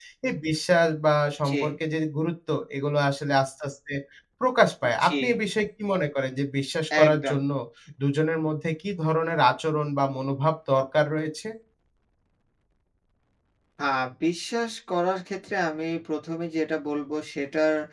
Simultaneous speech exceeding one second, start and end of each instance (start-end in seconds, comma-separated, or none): none